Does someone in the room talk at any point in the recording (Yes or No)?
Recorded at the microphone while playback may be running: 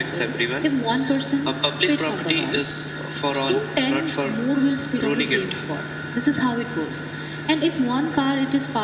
No